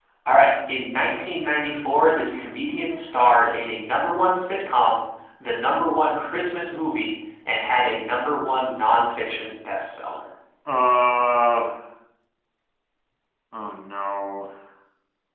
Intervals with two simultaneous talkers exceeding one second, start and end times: none

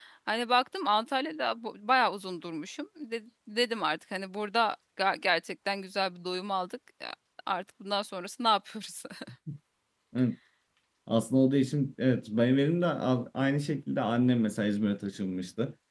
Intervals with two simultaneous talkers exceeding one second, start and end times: none

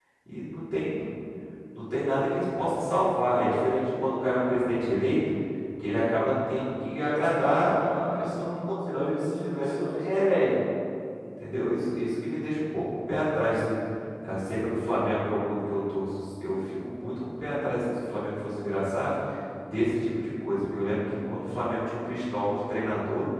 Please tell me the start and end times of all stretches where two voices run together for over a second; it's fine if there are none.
7.8-10.2

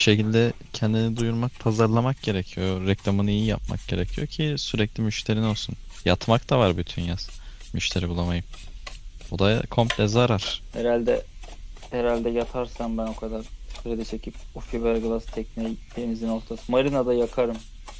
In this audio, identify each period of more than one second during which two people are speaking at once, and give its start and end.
none

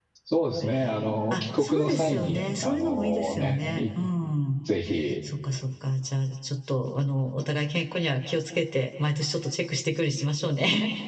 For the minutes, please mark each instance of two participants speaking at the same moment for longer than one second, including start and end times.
1.3-3.8

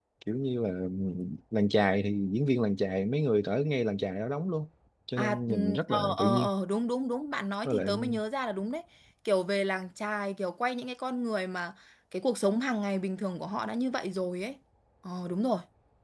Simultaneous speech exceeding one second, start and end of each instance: 5.2-6.5

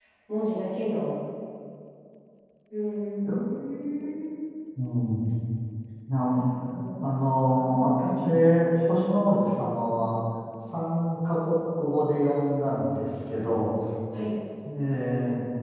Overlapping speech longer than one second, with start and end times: 7.1-8.3

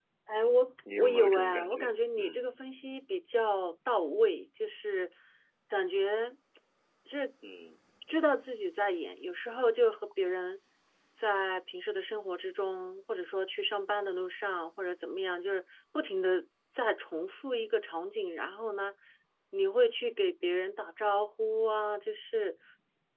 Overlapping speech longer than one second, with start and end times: 1.0-2.4

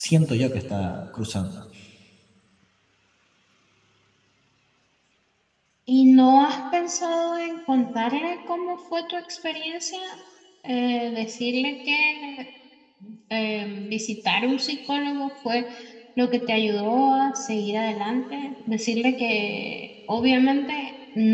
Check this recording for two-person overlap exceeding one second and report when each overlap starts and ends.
none

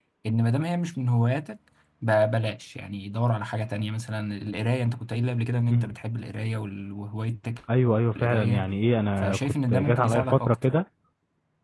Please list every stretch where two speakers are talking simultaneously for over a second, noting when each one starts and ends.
9.2-10.7

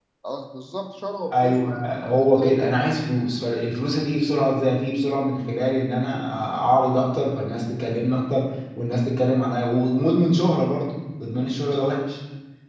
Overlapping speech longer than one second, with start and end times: 1.3-3.0

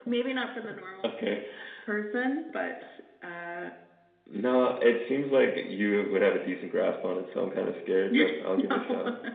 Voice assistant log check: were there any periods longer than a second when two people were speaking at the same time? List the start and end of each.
none

